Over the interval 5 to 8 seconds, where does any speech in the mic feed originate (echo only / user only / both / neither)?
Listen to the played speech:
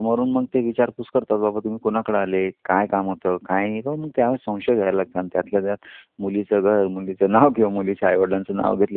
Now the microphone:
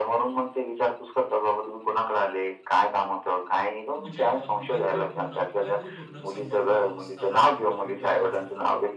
both